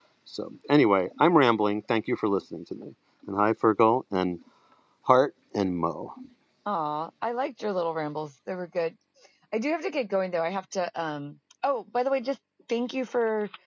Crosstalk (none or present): none